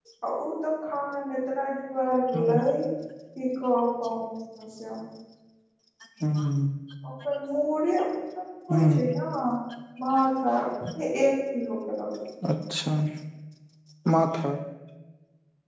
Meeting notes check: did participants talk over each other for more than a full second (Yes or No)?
No